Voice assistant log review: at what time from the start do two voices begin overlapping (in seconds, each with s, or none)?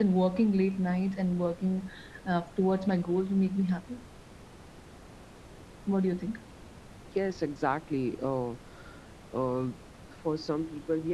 none